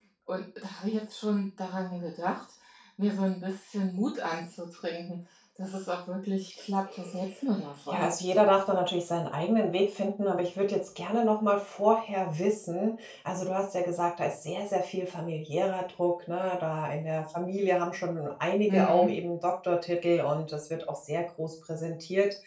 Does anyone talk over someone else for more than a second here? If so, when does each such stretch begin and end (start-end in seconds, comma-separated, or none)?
none